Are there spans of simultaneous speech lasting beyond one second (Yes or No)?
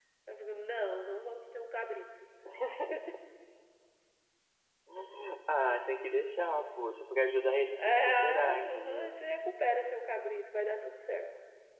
Yes